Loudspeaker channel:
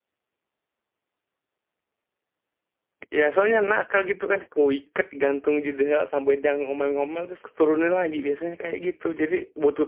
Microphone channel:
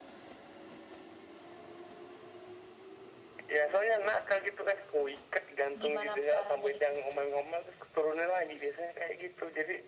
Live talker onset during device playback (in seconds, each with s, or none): 5.8 s